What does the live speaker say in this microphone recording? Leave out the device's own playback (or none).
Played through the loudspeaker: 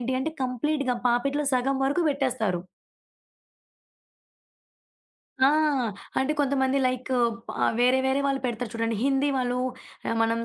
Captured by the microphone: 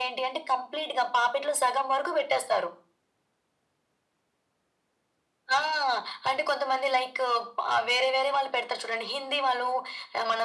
none